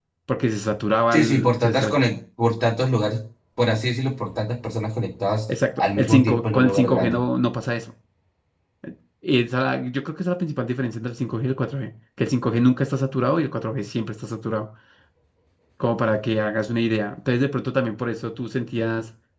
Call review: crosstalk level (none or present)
present